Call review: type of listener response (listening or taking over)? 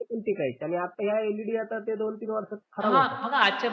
taking over